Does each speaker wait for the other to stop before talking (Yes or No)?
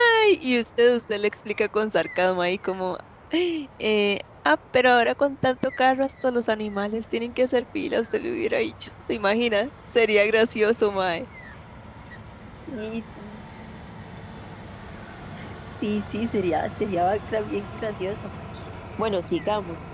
Yes